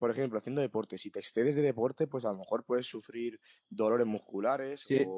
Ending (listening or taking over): listening